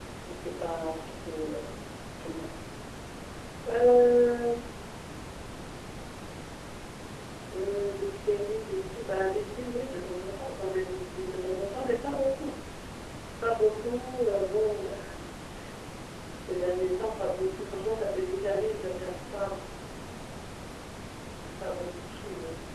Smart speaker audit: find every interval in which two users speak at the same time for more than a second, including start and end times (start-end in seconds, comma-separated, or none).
none